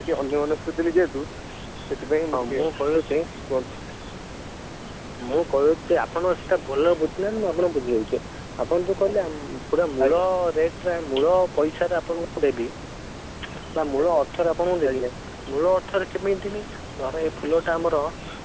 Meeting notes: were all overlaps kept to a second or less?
Yes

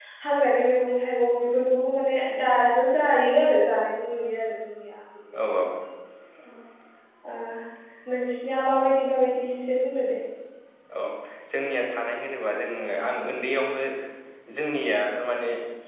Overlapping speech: No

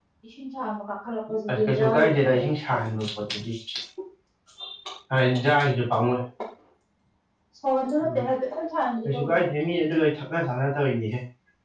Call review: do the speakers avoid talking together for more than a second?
No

